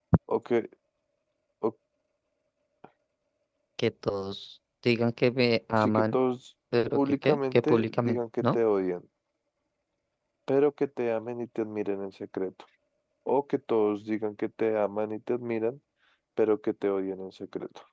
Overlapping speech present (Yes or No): Yes